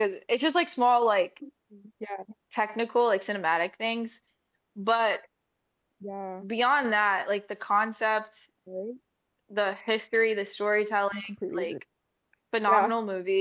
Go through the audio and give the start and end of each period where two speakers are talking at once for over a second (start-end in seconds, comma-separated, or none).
none